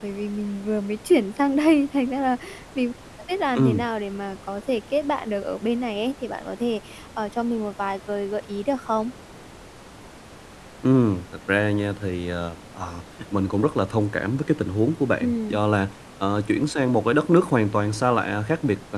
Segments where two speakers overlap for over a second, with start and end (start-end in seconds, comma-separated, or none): none